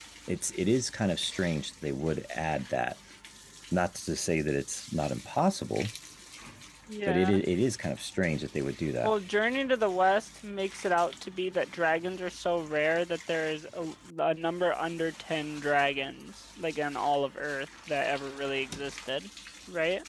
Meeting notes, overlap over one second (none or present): none